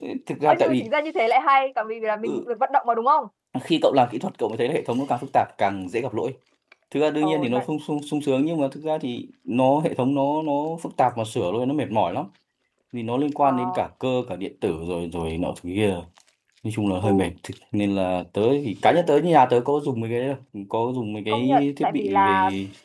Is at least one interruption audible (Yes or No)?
Yes